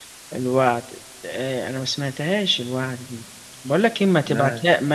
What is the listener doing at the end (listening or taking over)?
listening